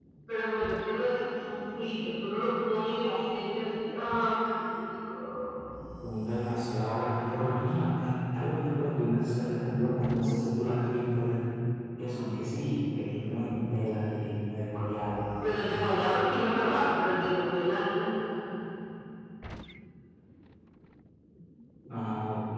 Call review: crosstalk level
none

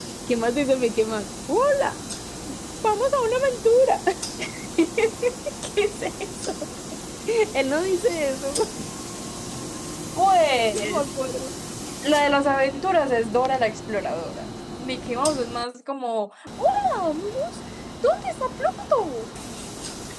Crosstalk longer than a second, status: none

